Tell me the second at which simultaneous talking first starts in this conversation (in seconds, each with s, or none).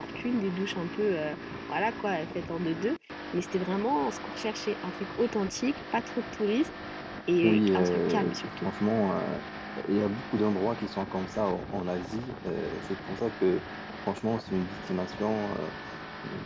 7.4 s